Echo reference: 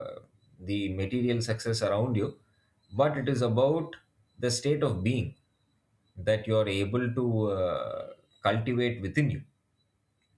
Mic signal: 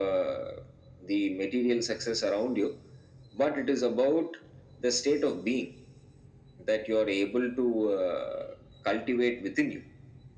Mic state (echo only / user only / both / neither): echo only